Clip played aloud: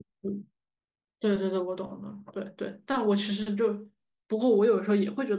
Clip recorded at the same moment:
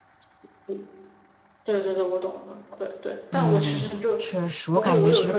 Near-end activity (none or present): present